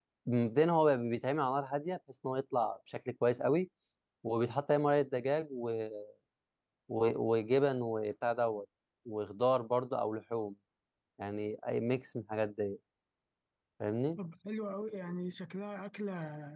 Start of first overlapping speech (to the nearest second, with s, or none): none